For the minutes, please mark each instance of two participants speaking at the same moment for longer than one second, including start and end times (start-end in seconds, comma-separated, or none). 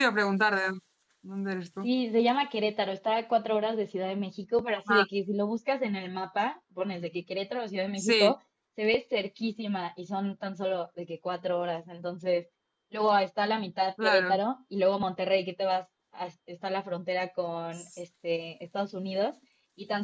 none